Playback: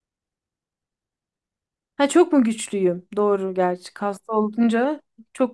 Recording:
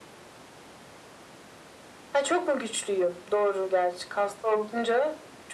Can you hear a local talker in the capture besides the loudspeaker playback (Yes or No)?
No